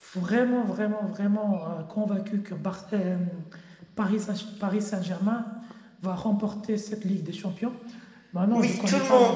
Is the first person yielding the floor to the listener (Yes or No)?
Yes